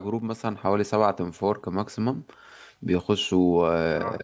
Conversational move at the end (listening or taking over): listening